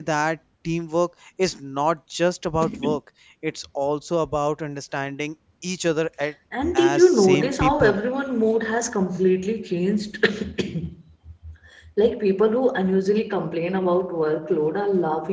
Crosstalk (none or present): present